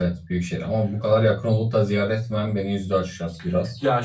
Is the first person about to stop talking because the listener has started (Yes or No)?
Yes